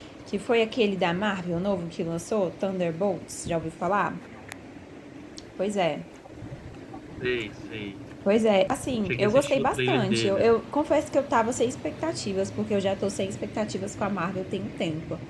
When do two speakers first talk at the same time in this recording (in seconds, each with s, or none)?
9.1 s